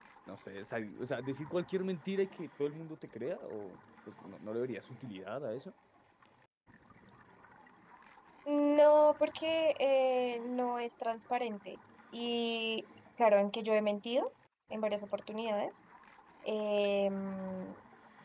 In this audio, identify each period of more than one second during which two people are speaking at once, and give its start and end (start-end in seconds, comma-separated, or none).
none